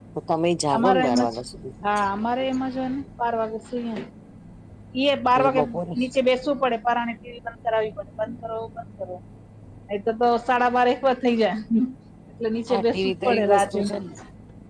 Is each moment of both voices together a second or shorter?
No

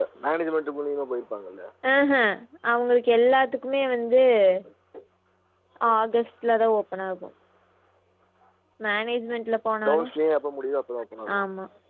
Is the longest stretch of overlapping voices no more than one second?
Yes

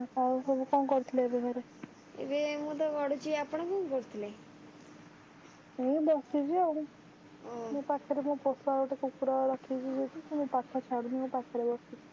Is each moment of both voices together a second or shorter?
Yes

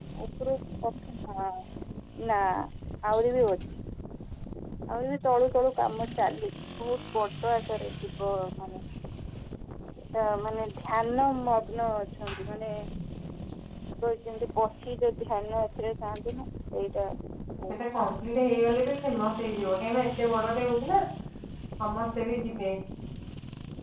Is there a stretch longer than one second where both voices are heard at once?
No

